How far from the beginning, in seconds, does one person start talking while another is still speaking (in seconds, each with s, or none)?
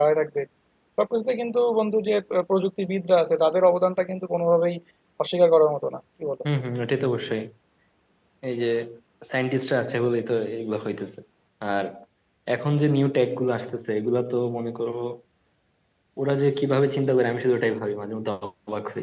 none